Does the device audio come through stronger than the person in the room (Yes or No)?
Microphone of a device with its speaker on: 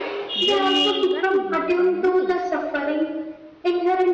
Yes